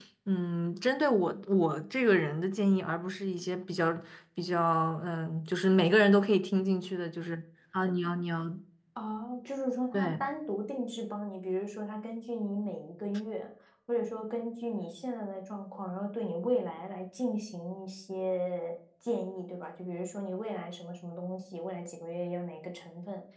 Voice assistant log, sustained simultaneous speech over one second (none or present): none